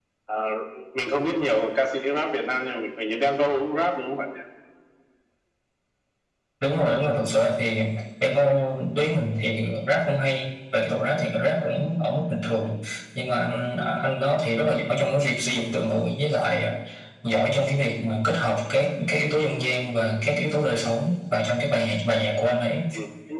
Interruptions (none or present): none